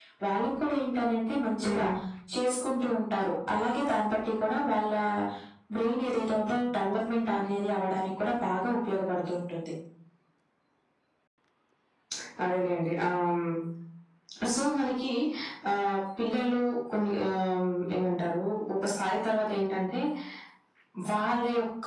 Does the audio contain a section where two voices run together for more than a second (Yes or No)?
No